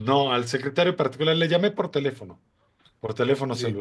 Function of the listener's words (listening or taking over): listening